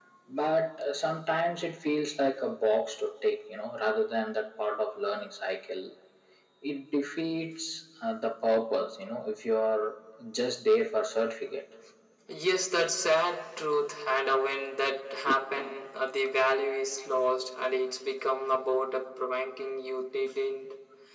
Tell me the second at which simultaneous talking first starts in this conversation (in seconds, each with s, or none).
none